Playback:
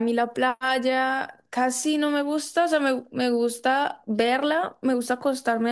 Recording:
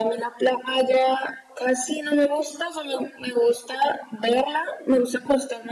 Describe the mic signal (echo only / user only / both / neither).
echo only